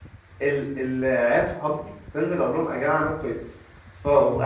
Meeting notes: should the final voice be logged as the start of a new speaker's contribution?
No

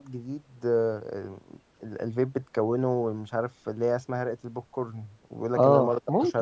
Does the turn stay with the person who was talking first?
No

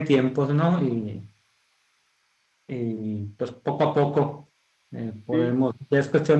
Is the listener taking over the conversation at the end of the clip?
No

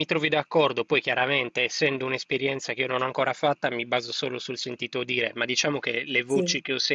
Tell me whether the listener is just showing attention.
Yes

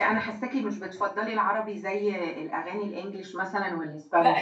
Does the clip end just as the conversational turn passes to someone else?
Yes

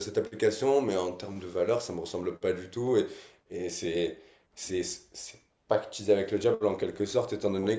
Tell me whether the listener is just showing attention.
Yes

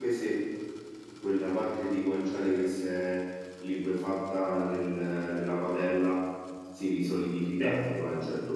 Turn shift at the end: No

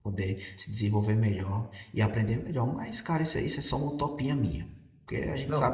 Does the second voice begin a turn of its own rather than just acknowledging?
Yes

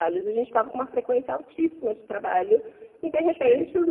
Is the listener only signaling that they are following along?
Yes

